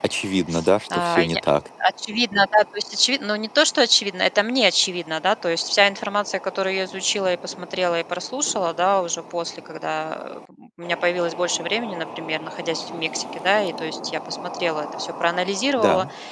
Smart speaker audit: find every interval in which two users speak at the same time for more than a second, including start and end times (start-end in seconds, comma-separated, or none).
none